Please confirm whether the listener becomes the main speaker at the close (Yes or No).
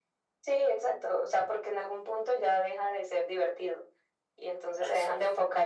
No